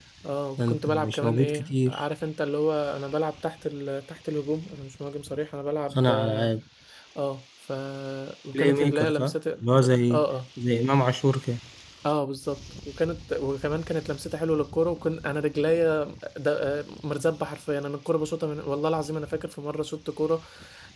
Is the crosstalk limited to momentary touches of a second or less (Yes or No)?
No